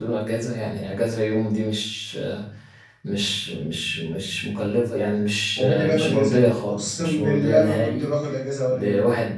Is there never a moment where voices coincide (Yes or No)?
No